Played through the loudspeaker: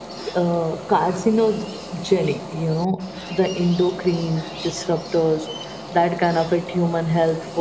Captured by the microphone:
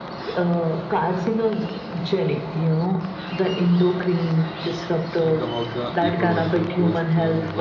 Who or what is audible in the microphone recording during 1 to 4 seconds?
echo only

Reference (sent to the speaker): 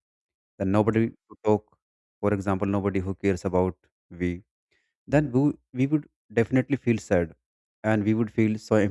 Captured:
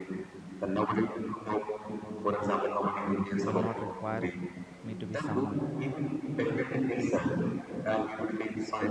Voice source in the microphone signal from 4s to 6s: both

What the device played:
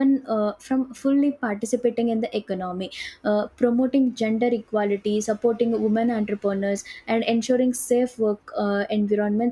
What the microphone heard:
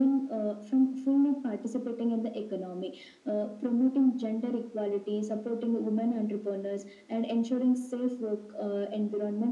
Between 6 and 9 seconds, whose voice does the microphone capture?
echo only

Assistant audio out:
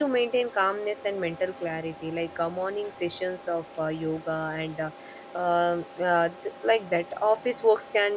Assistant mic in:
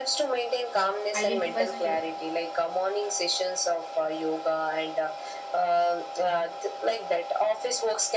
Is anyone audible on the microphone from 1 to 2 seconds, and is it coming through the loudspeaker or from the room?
both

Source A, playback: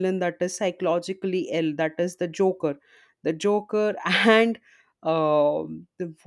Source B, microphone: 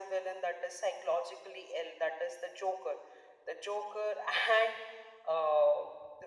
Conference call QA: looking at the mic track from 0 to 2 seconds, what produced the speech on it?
echo only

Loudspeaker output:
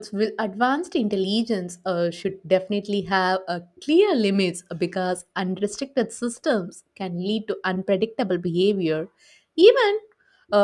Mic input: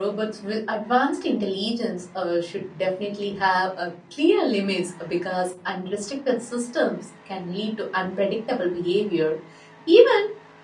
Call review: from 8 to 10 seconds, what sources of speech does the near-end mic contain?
echo only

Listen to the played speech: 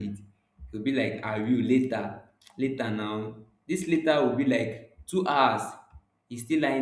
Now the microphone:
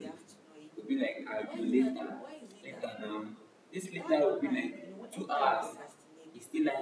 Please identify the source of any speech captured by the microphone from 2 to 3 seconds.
both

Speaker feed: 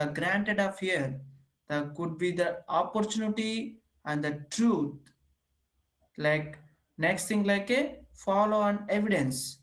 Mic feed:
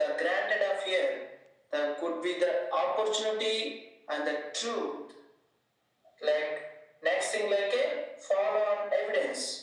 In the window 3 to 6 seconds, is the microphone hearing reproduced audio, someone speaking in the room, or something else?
echo only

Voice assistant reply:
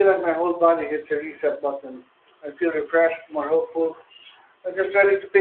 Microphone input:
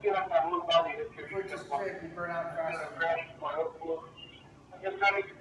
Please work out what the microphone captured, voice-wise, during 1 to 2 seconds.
both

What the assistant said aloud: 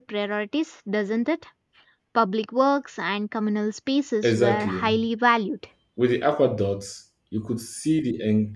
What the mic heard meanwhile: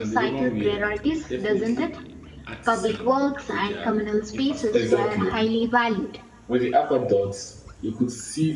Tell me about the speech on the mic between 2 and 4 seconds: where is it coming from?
both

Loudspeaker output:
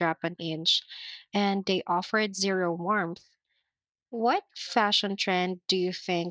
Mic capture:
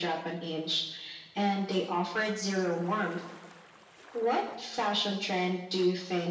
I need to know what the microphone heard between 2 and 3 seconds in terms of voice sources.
echo only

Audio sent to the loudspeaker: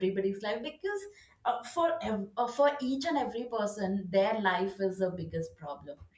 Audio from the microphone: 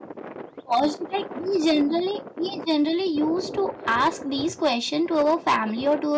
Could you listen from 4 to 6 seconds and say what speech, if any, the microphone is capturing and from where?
user only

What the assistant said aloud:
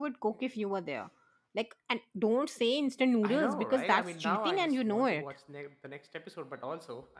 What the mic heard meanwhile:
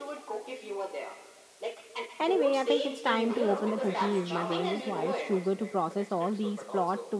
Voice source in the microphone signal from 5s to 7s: both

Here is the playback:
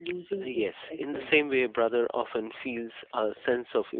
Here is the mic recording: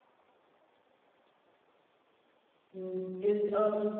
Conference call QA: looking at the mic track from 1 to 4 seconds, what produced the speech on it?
user only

